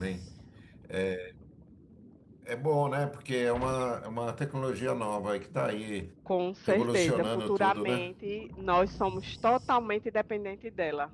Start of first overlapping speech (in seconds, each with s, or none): 6.7 s